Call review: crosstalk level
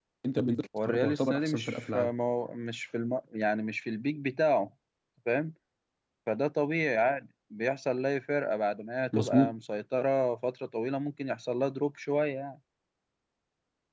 present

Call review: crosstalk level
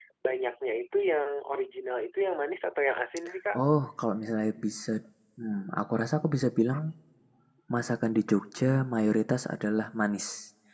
none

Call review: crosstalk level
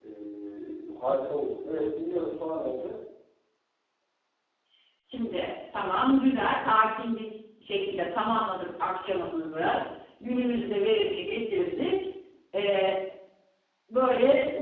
none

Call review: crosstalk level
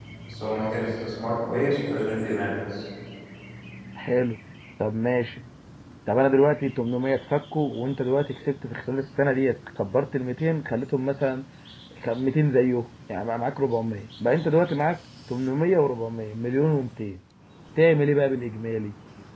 none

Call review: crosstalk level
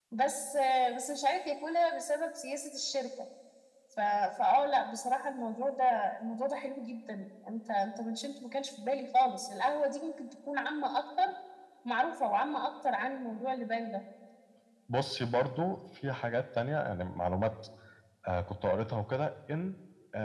none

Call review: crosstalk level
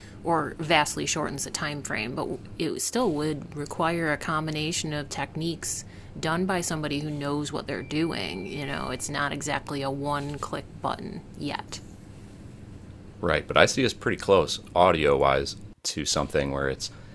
none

